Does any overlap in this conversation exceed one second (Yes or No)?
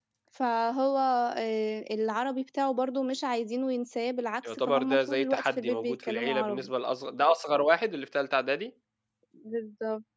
Yes